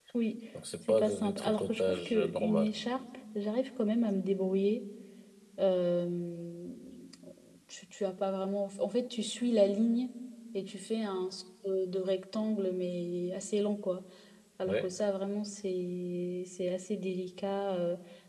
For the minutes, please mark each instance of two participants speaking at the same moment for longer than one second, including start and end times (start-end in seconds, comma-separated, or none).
0.9-2.7